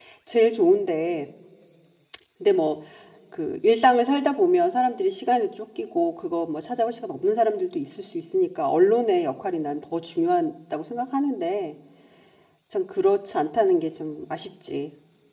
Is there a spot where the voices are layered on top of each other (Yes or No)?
No